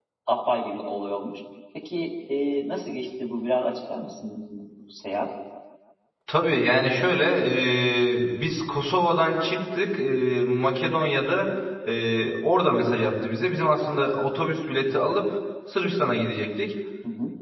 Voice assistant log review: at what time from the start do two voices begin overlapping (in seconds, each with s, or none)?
none